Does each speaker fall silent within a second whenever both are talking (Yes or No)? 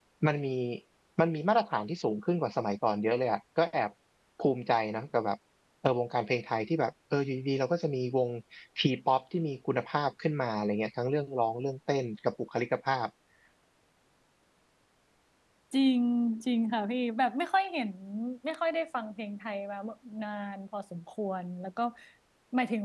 Yes